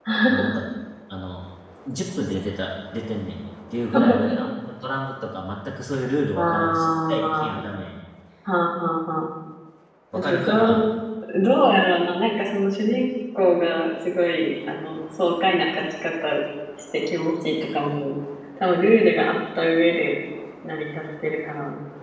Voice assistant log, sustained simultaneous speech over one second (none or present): present